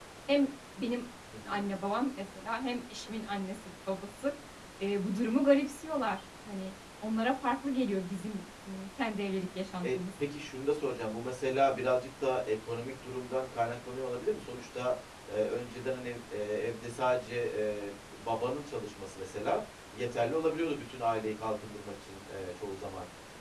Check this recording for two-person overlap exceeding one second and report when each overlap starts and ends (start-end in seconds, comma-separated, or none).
none